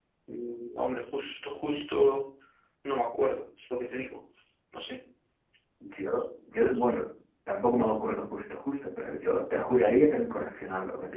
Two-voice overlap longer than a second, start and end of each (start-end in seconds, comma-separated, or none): none